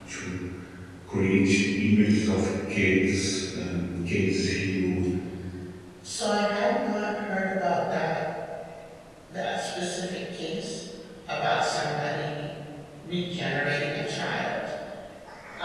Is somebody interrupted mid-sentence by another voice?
No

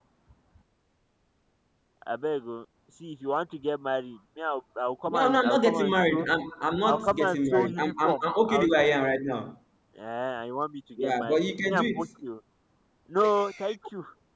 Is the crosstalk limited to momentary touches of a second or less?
No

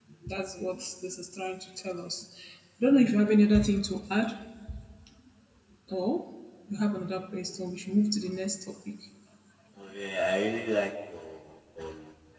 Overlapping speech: No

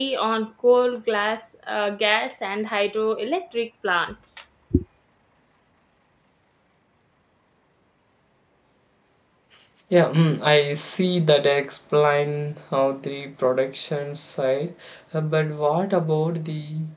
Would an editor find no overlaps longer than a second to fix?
Yes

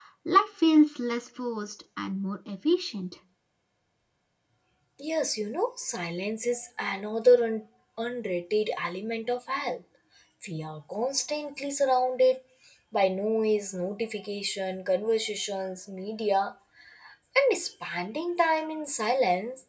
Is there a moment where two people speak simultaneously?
No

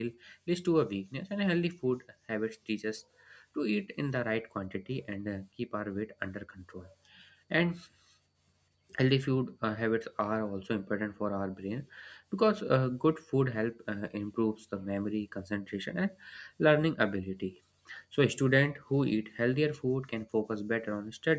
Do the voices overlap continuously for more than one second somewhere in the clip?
No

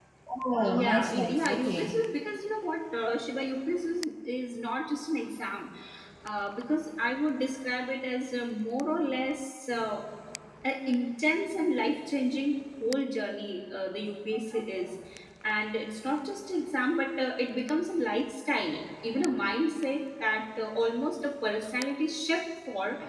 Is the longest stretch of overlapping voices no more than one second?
No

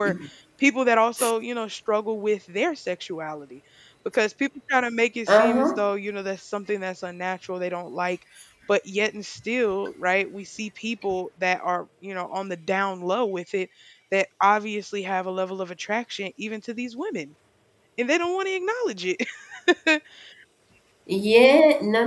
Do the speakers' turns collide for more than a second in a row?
No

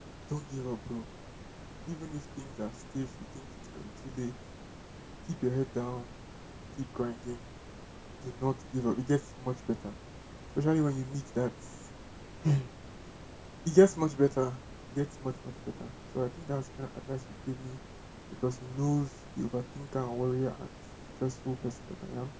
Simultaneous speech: No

